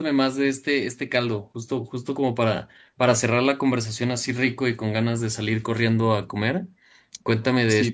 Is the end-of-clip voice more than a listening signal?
Yes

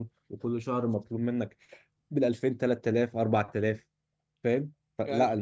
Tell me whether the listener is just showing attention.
Yes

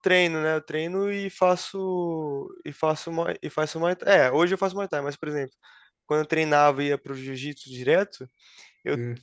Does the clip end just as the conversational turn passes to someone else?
No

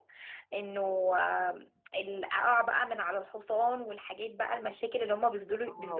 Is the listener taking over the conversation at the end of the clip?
Yes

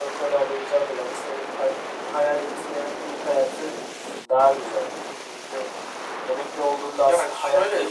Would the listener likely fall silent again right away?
No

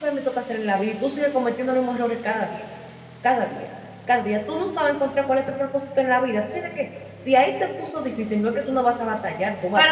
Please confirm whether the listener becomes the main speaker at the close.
Yes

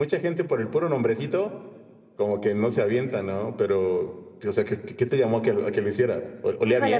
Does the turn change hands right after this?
Yes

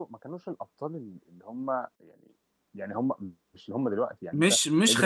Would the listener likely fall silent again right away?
No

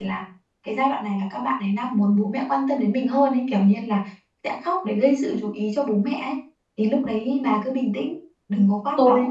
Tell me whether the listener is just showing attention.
No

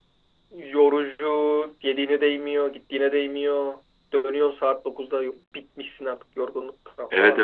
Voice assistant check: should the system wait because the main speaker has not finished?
No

